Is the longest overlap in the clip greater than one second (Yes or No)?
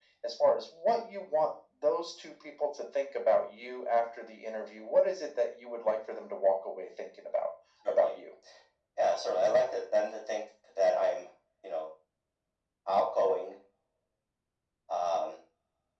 No